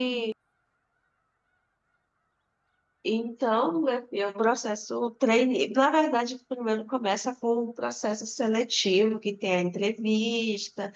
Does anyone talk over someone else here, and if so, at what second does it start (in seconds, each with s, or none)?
none